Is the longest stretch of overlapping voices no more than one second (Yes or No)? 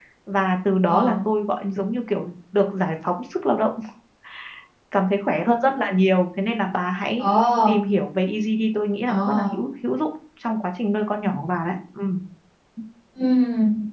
Yes